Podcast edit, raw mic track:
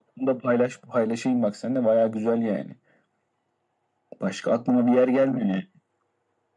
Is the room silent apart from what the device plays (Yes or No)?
Yes